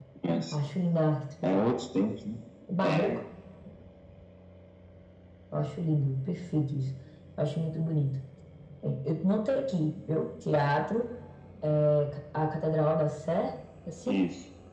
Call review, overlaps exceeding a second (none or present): none